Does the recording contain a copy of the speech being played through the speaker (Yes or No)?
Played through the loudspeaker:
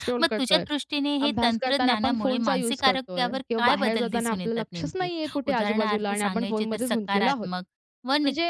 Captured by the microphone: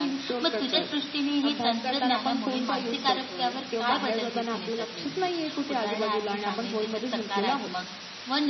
Yes